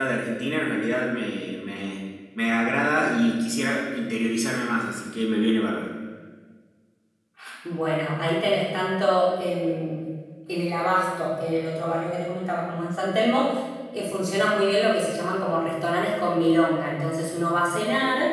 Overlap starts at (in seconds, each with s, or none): none